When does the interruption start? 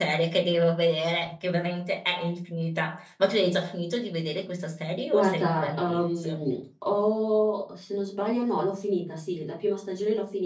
5.1 s

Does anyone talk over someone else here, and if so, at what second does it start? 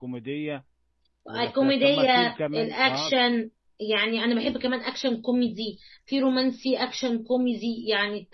1.4 s

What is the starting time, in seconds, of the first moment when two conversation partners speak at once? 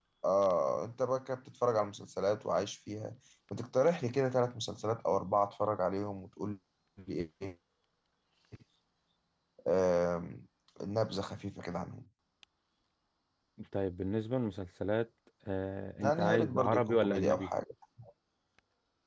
16.0 s

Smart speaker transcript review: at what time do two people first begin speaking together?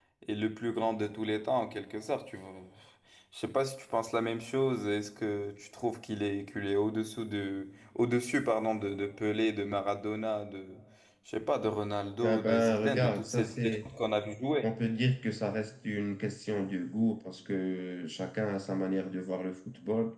12.2 s

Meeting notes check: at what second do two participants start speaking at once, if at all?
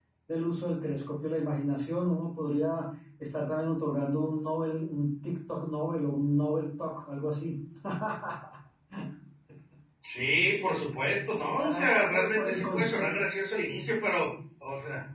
11.6 s

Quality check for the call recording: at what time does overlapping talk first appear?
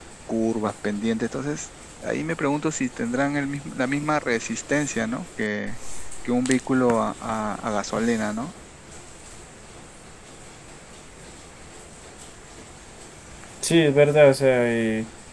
none

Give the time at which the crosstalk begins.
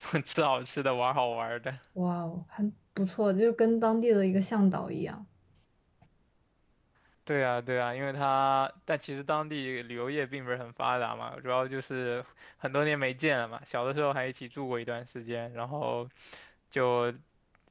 none

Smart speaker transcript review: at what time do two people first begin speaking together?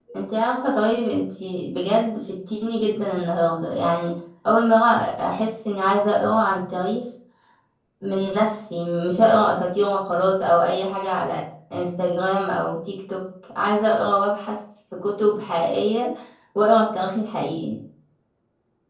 none

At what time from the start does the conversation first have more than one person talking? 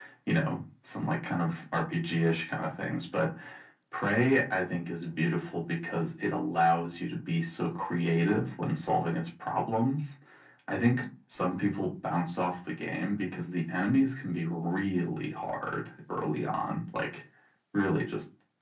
none

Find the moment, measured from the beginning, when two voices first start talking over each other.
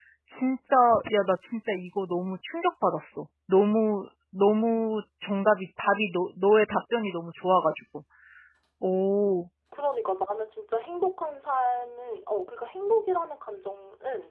none

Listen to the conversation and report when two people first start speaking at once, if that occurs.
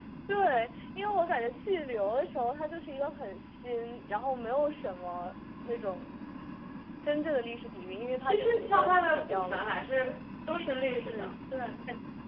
8.2 s

